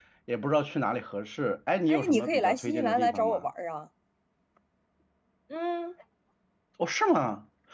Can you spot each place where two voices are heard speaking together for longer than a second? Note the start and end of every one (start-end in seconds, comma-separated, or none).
1.9-3.5